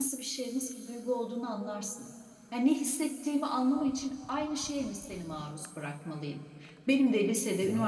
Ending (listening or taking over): listening